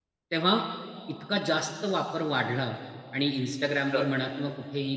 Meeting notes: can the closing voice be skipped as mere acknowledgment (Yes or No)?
Yes